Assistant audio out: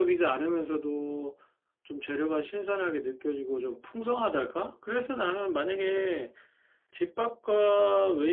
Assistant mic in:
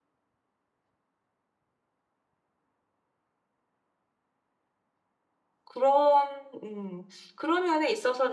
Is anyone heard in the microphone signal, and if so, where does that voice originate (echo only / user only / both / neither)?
user only